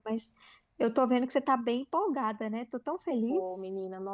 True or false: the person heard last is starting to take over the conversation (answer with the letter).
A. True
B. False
A